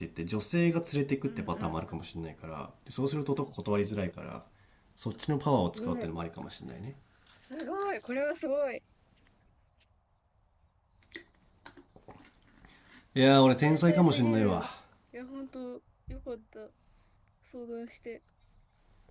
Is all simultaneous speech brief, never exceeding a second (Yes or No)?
No